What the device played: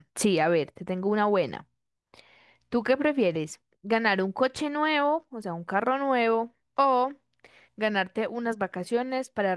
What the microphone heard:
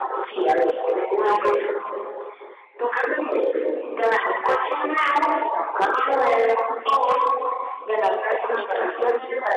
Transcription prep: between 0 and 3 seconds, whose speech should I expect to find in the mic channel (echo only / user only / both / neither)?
echo only